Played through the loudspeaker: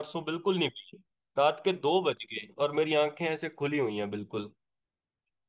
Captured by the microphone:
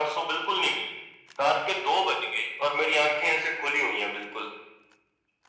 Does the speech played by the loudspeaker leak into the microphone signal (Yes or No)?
Yes